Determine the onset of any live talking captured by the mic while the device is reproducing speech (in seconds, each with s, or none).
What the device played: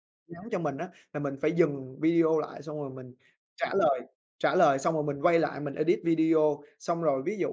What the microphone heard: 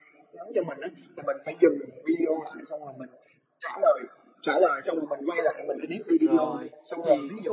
6.1 s